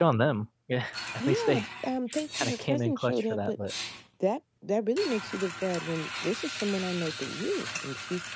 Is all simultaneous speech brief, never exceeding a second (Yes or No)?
No